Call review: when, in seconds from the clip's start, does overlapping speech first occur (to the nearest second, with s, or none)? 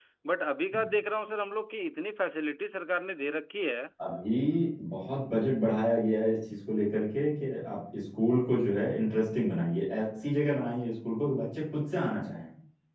none